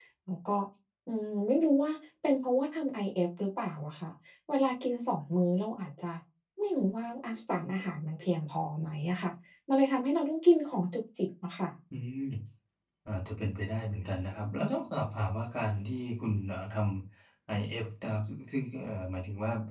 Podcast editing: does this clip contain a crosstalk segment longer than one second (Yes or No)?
No